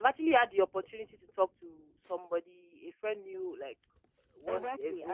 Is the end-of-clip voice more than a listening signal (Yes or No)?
Yes